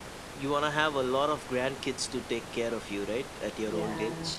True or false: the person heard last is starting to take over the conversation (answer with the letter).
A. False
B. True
B